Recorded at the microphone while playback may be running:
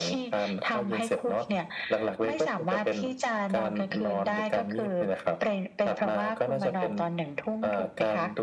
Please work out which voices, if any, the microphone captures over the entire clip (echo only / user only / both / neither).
echo only